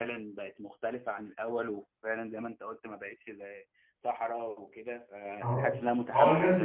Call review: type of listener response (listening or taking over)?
taking over